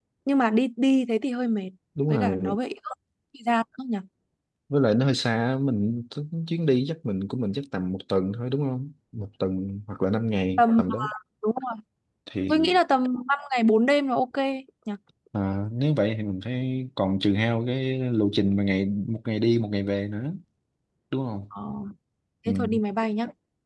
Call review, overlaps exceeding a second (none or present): none